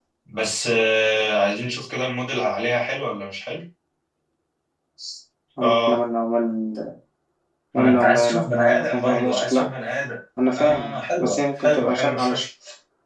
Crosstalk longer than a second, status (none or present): present